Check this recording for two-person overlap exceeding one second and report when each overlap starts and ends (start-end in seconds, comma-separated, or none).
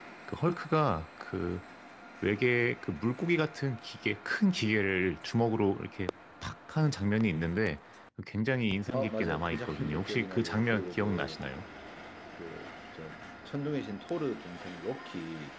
8.9-11.4